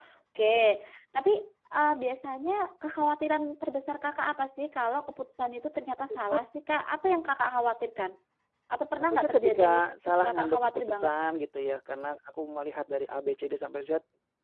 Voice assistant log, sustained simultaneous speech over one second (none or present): present